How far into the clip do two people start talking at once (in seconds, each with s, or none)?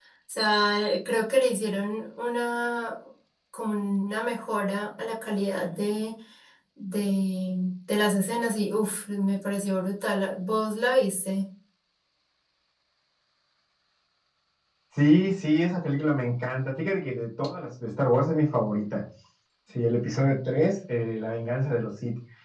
none